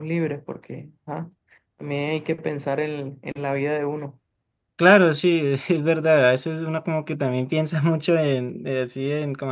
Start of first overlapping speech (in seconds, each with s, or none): none